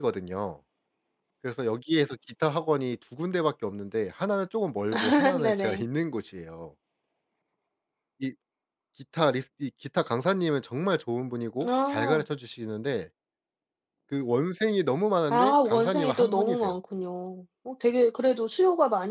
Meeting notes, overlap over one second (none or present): present